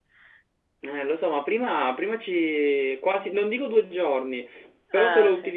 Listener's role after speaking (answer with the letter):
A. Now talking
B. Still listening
B